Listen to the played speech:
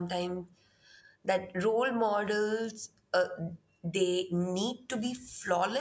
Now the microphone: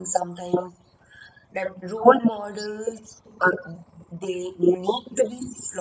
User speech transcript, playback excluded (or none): none